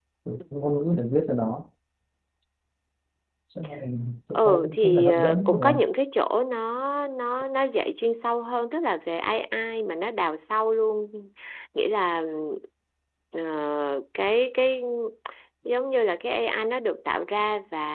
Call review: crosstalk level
present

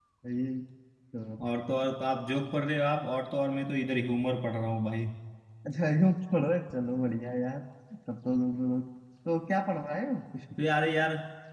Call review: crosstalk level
none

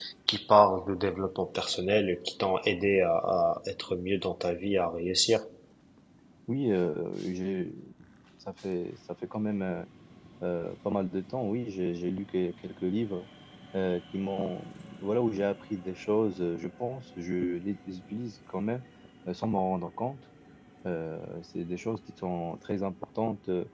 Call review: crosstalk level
none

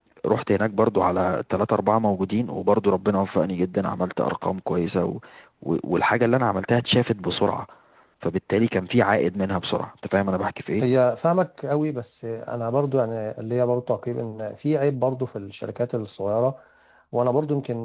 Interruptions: none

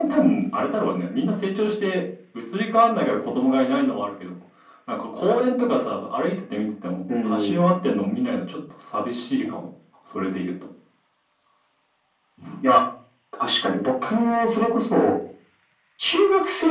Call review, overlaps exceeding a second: none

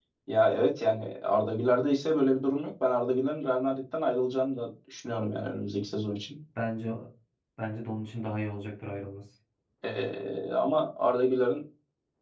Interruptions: none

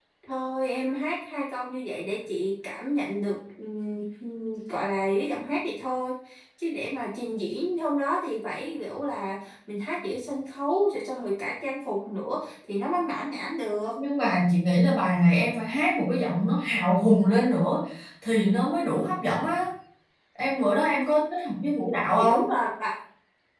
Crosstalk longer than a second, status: none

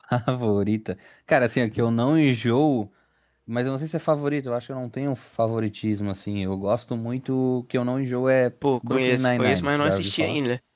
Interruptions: present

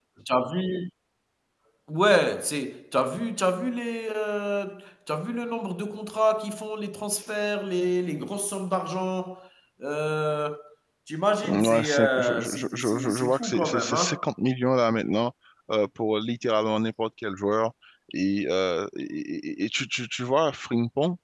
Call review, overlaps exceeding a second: present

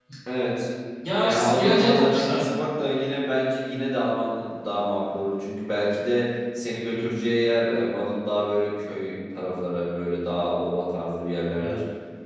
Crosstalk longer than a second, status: present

